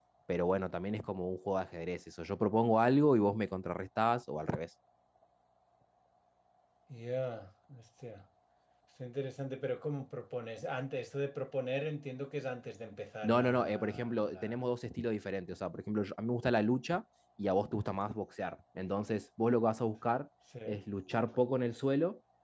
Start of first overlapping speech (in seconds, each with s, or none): 13.2 s